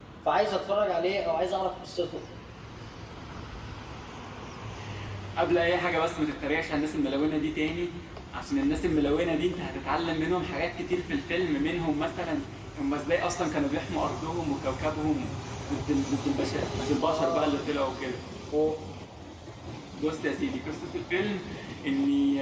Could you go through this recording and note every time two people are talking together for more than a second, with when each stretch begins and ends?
none

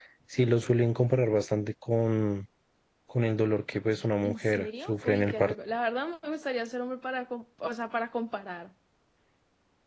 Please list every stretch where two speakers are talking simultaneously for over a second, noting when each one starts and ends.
4.2-5.5

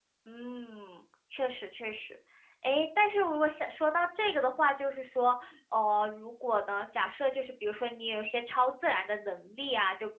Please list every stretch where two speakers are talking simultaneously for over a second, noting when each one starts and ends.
none

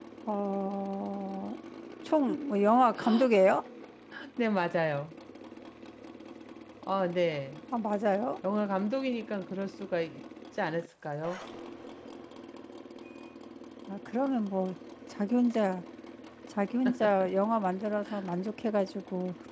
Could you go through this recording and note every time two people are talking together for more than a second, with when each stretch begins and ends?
none

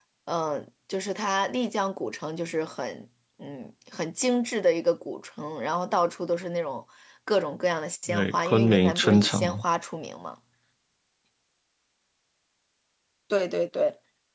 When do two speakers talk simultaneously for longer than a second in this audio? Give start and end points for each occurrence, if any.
8.1-9.6

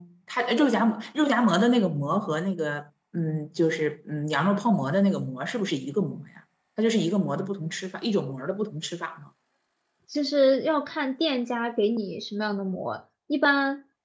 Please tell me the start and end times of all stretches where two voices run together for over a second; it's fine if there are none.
none

